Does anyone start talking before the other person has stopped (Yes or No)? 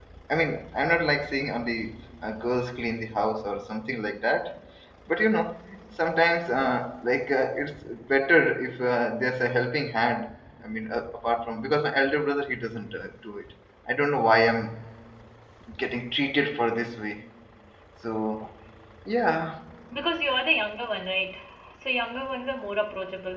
No